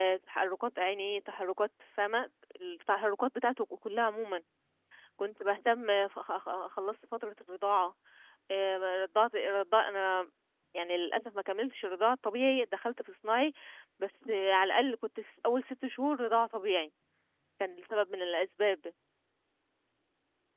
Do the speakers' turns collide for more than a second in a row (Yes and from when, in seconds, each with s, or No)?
No